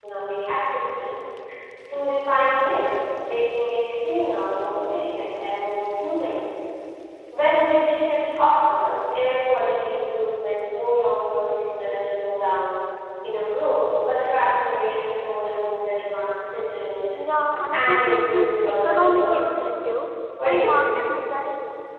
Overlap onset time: 17.7 s

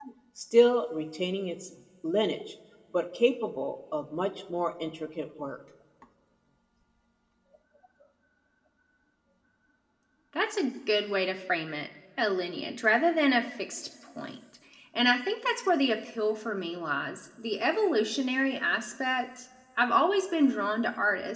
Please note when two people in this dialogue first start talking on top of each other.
none

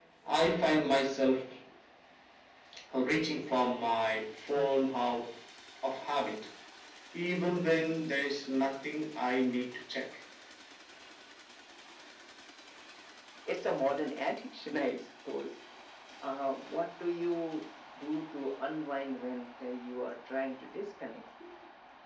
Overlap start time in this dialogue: none

